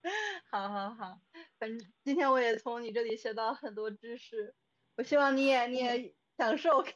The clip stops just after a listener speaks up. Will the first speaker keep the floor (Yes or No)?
Yes